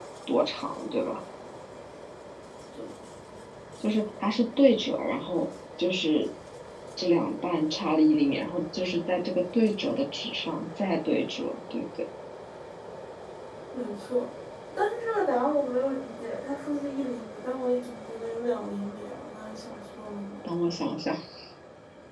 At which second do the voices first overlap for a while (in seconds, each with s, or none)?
none